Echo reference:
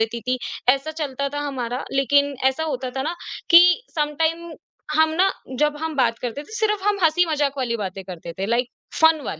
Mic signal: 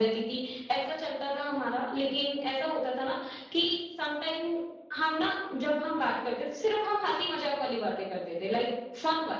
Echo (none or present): present